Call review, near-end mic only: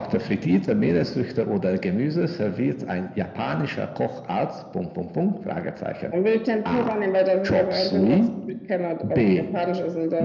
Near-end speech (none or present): none